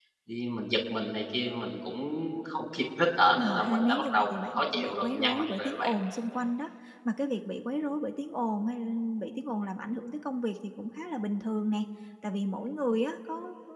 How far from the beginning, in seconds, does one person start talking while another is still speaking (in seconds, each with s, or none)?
3.4 s